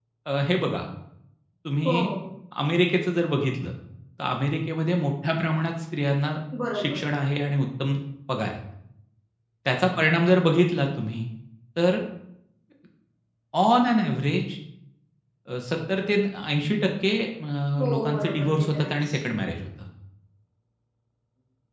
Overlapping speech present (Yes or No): Yes